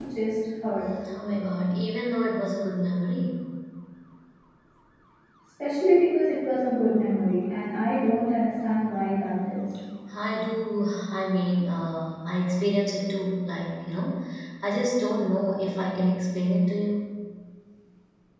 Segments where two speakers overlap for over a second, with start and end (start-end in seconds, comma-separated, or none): none